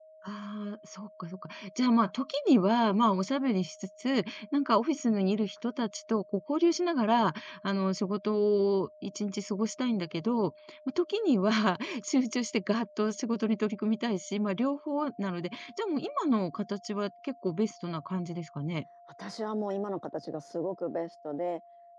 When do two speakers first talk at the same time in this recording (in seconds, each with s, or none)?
none